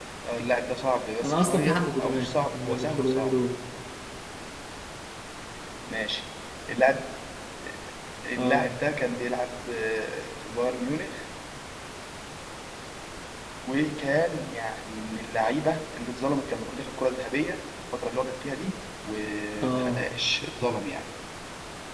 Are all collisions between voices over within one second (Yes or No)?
No